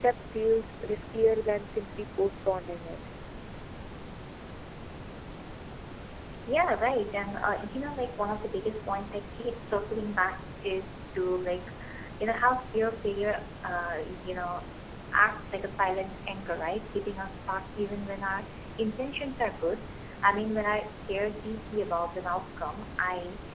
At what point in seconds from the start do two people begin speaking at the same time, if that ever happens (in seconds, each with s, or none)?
none